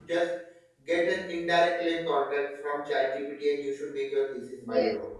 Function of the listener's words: taking over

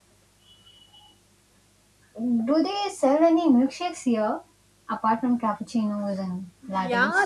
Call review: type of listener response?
taking over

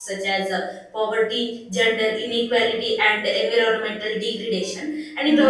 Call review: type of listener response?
listening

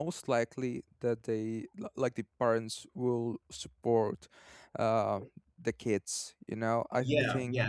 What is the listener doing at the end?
taking over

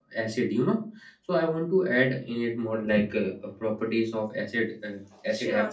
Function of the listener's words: listening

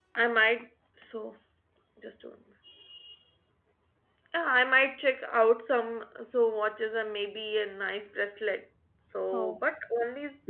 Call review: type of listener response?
listening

